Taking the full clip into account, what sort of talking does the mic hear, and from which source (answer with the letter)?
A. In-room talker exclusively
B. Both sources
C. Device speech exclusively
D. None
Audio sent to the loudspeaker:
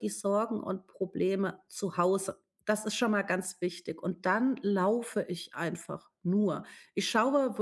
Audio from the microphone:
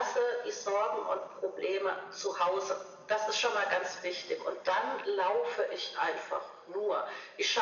C